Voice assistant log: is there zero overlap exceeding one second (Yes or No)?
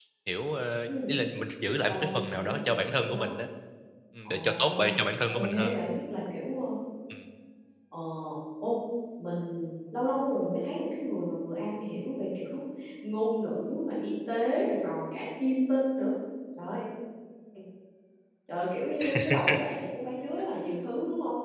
No